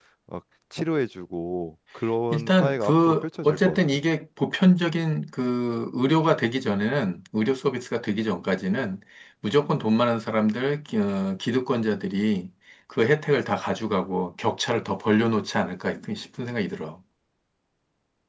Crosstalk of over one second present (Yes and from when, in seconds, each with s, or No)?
Yes, from 2.3 s